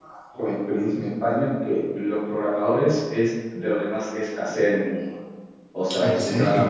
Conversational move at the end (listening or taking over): listening